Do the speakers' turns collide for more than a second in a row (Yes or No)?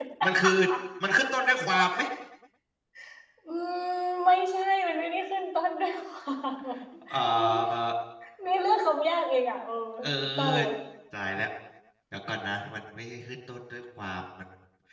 No